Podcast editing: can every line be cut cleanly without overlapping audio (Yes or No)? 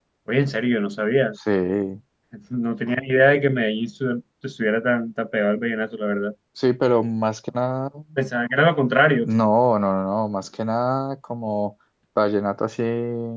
Yes